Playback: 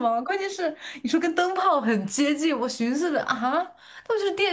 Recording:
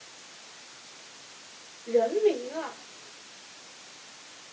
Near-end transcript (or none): 人名啊，